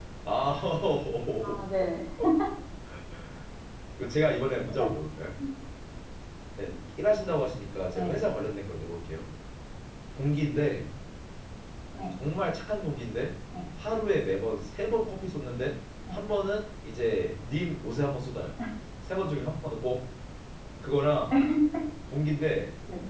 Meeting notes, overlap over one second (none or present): none